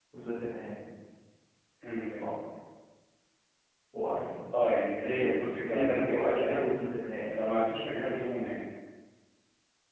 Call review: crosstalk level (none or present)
present